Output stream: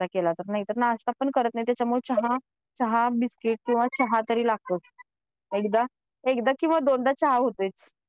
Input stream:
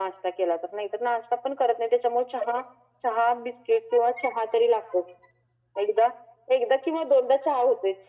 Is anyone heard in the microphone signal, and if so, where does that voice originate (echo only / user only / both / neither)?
echo only